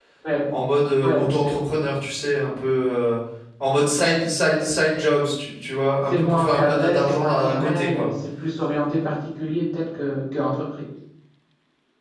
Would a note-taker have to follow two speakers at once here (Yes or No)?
Yes